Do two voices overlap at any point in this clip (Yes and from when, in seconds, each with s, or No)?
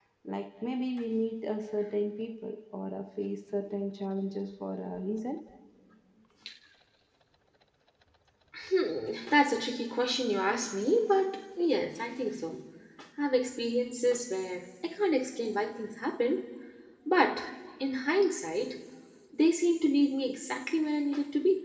No